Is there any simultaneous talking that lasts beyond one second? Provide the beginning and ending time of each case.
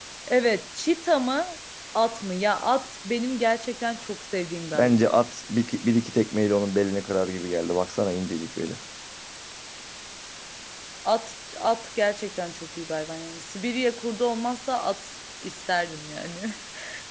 none

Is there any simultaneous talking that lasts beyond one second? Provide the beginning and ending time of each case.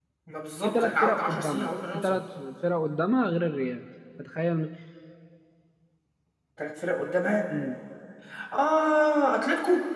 0.6-2.2

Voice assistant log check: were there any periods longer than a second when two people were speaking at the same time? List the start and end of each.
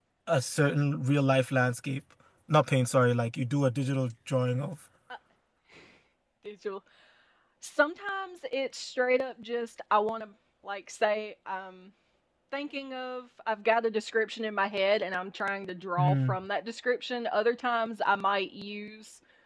none

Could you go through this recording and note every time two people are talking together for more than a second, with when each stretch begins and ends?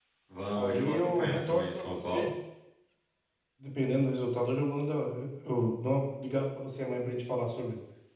0.6-2.3

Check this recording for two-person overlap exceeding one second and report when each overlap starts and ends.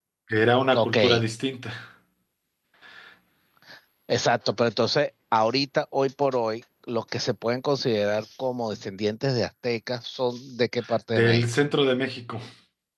none

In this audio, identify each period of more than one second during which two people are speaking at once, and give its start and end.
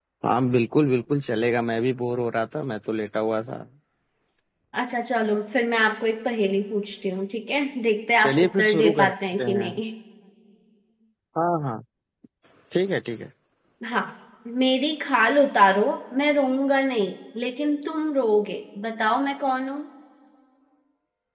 8.2-9.7

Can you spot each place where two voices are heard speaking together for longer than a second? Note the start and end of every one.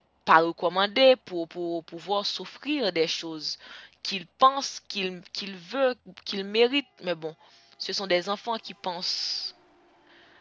none

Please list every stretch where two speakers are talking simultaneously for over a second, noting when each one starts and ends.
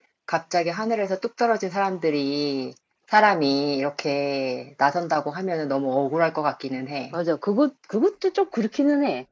none

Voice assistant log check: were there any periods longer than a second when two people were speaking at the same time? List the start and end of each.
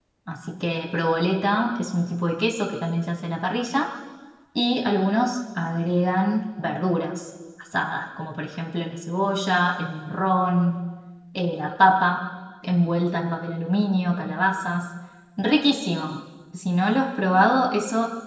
none

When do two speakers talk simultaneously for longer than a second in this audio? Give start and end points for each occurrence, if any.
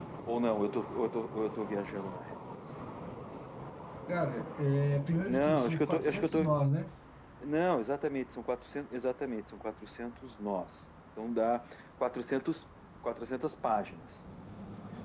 5.3-6.5

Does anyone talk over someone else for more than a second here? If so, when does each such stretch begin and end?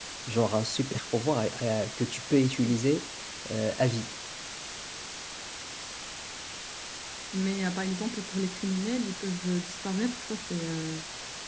none

